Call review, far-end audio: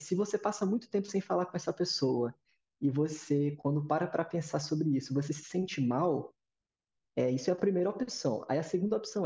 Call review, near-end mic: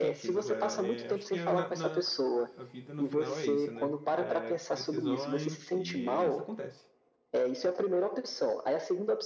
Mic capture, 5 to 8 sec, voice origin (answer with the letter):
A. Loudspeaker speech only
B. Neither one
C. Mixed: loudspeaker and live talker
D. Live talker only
C